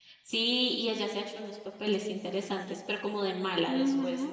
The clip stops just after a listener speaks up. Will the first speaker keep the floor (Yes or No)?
No